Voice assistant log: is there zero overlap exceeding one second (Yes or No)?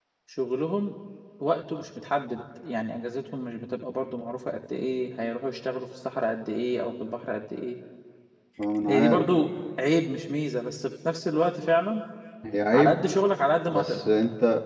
Yes